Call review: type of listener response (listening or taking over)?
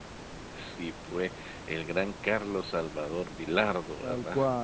taking over